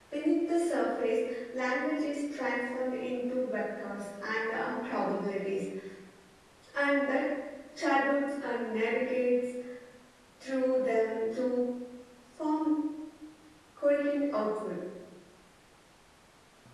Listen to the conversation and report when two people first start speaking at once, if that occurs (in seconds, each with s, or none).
none